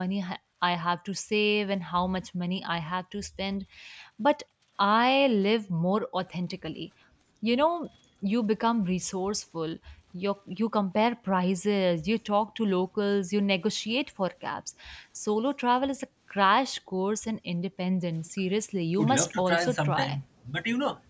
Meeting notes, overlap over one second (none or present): present